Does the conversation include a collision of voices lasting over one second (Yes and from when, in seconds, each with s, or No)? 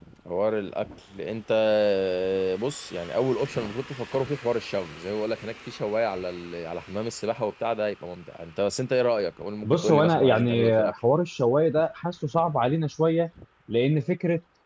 Yes, from 9.6 s